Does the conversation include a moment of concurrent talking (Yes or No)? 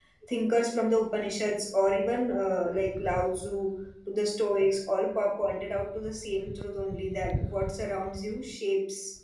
No